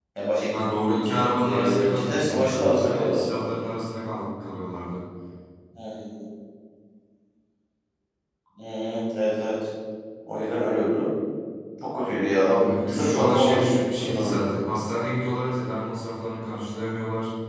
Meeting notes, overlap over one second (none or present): present